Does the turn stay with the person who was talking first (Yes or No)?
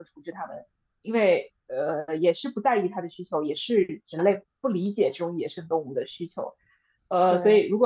Yes